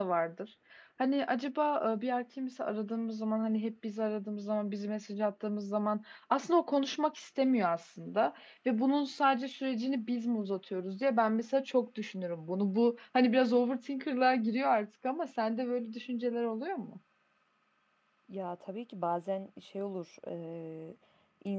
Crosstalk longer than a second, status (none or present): none